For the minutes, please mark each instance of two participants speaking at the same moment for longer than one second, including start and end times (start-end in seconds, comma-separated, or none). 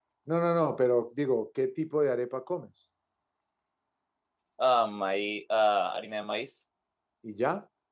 none